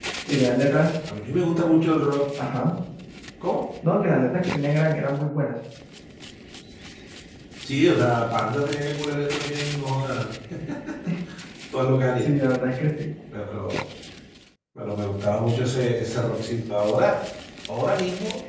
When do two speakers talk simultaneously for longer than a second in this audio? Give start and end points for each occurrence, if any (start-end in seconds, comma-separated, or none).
none